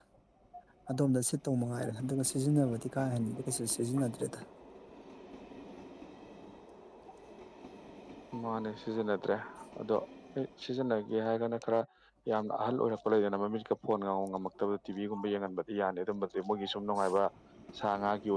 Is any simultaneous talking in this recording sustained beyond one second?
No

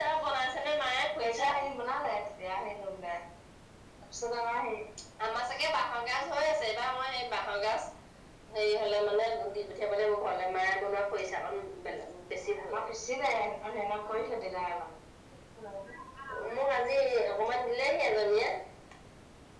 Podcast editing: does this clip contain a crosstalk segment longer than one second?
No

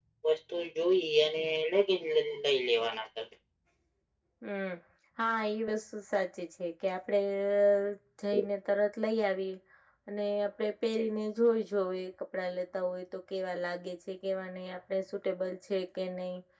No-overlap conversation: Yes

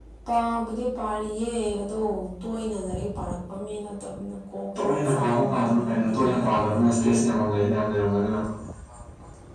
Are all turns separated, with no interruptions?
No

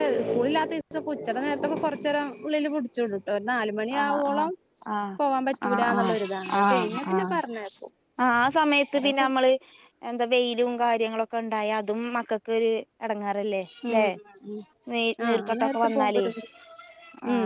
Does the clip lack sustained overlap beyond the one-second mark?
No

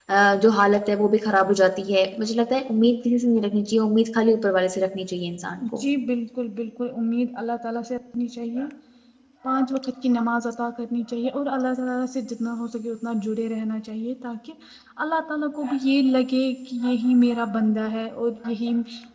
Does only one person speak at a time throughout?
Yes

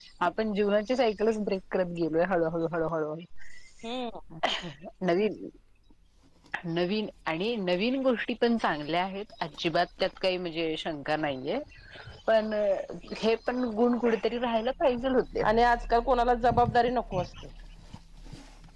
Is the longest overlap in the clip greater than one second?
No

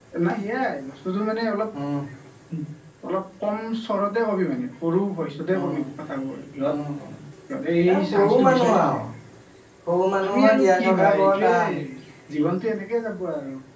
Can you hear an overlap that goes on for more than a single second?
Yes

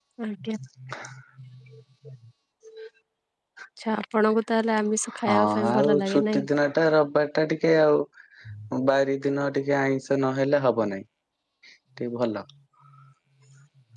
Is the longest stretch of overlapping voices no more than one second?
No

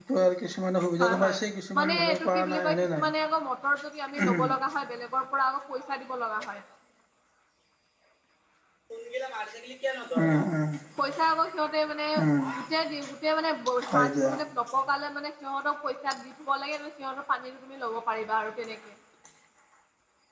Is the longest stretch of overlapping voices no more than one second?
No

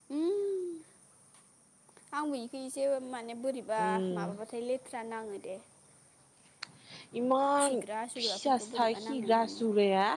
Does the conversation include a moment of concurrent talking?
Yes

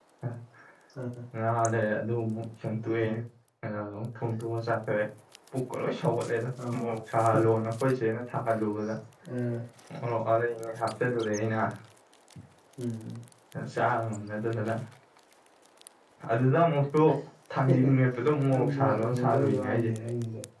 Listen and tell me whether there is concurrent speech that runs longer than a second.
Yes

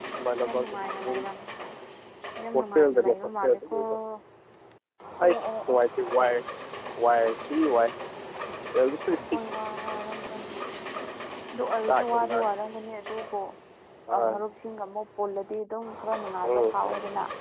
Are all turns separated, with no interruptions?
No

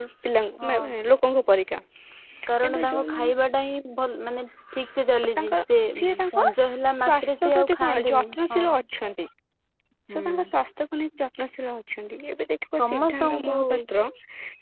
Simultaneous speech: Yes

